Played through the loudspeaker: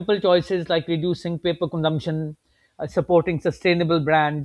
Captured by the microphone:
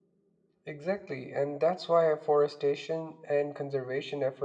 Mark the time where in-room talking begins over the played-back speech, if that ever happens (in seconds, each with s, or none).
0.6 s